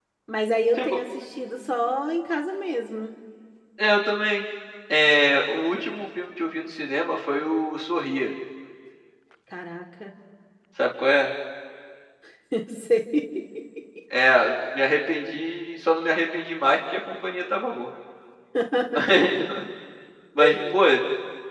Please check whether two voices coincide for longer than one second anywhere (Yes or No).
No